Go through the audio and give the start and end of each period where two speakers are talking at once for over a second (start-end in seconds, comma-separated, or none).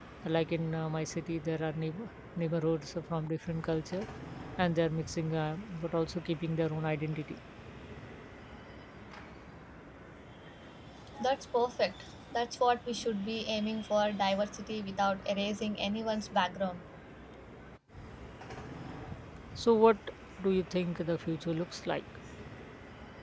none